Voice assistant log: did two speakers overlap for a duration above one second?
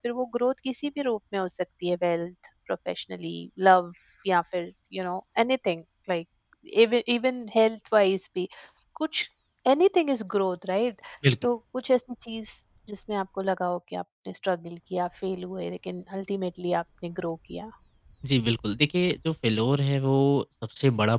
No

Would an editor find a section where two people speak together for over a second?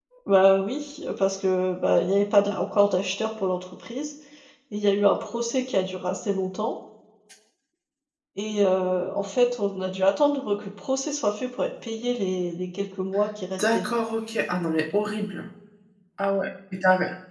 No

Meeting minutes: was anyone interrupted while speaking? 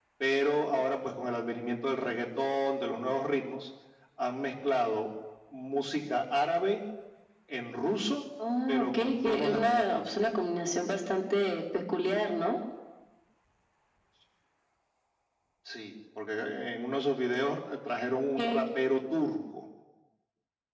Yes, from 8.7 s

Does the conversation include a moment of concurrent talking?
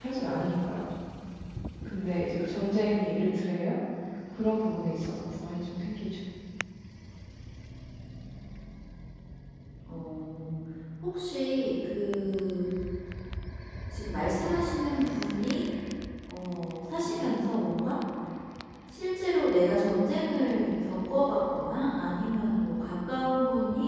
No

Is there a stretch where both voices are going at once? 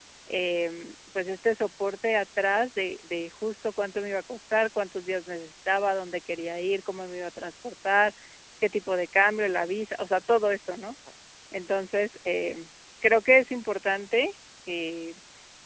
No

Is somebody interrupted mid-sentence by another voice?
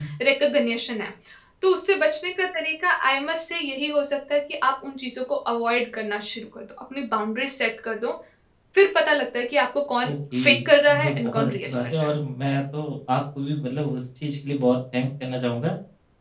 Yes, from 10.1 s

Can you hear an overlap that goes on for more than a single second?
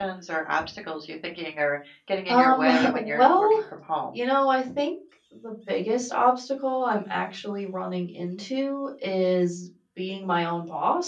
Yes, from 2.3 s

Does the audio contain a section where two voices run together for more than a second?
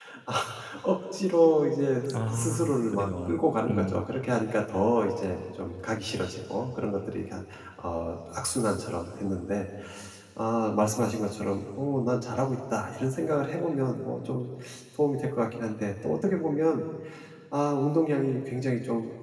Yes, from 2.1 s

